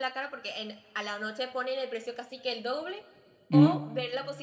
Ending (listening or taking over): listening